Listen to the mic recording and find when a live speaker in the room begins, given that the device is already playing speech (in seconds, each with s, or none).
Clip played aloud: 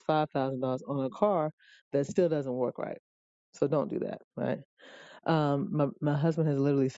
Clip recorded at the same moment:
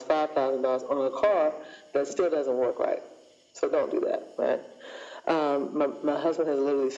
none